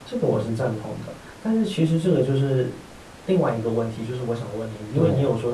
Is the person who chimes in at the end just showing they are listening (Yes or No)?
Yes